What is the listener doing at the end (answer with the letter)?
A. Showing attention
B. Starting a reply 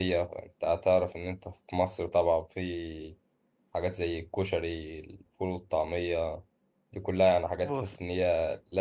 A